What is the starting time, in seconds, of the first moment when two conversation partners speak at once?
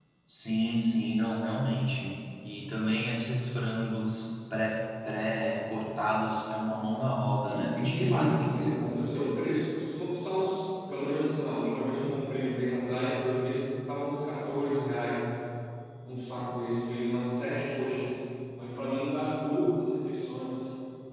7.4 s

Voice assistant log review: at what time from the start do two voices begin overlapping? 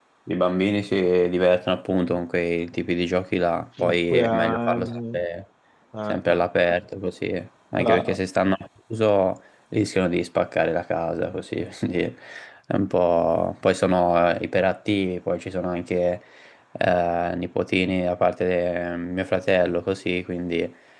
3.8 s

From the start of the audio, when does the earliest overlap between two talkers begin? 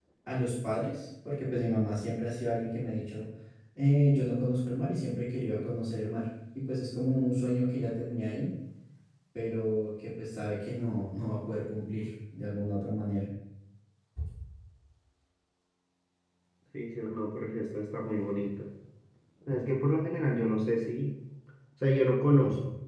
none

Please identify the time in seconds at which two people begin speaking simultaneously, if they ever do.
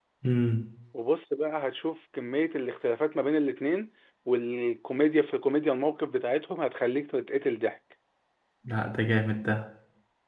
none

